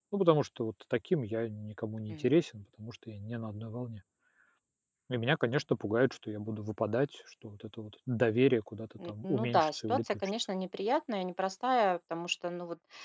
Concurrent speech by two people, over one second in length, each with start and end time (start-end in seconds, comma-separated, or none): 9.1-10.3